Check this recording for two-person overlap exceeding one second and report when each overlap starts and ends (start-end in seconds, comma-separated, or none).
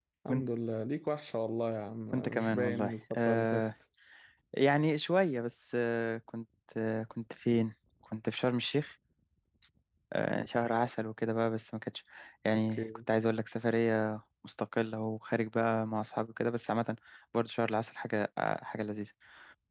2.1-3.7